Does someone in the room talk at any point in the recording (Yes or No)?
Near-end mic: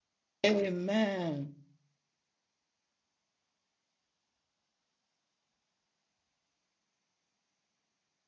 Yes